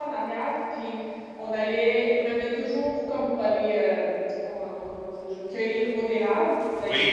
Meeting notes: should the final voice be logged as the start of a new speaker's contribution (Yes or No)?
No